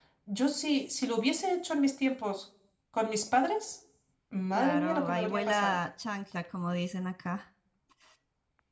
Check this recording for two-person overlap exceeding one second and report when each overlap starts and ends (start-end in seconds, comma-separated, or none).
4.5-5.8